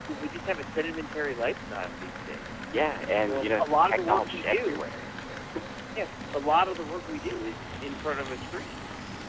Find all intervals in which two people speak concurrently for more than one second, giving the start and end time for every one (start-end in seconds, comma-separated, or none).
3.2-4.8